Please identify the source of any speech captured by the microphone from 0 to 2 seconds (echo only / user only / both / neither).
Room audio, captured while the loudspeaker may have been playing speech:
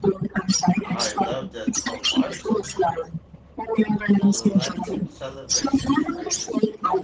both